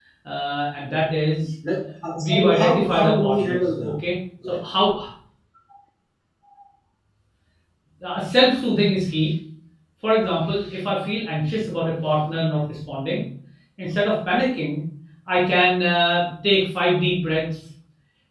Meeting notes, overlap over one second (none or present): present